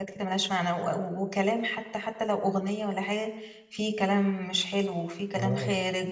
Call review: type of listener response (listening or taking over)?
taking over